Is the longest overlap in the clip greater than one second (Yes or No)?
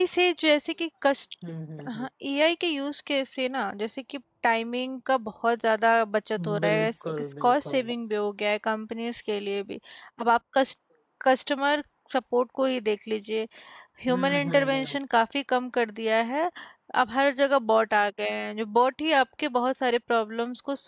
Yes